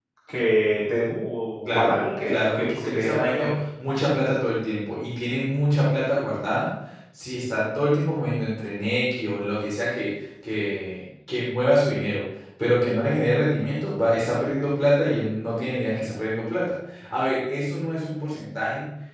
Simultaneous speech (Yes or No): Yes